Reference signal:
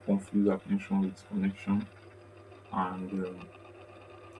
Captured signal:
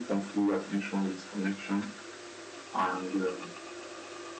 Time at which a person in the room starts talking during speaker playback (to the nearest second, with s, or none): none